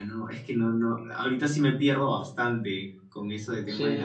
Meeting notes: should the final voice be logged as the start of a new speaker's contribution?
Yes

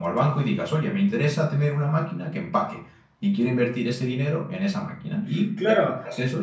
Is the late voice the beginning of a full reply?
No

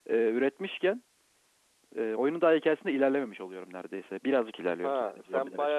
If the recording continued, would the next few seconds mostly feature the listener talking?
Yes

